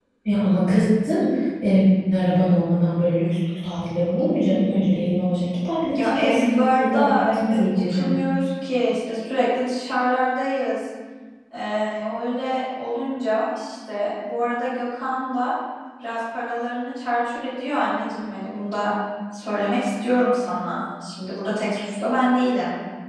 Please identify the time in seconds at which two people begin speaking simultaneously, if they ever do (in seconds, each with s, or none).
5.9 s